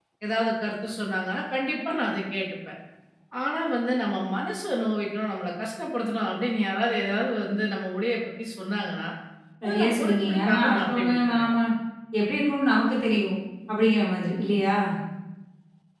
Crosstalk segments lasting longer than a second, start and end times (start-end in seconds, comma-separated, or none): 9.7-11.5